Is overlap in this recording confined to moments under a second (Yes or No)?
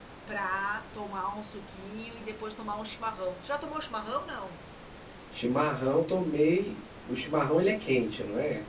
Yes